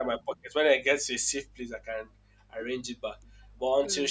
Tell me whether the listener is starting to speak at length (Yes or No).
No